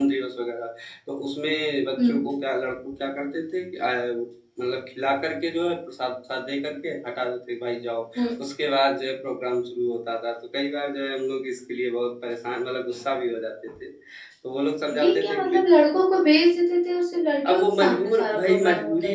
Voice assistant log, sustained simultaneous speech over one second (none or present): present